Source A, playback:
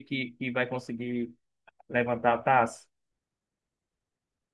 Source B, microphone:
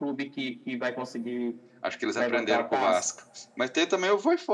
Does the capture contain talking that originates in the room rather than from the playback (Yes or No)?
Yes